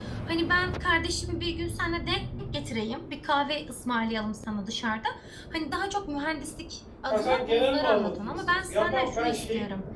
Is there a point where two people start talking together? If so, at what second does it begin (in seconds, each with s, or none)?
7.1 s